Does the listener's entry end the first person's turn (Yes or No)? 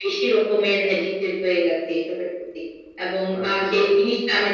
No